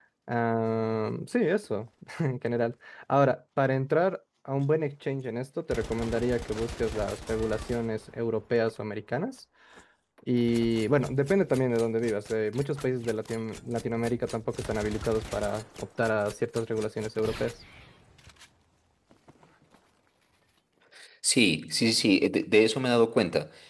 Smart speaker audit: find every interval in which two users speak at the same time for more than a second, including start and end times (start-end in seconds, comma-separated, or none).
none